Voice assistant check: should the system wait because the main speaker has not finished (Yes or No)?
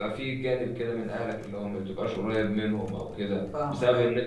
Yes